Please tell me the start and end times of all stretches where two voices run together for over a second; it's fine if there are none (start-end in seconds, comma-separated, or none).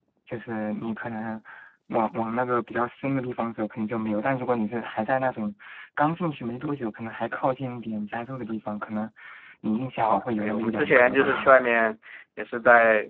10.0-11.5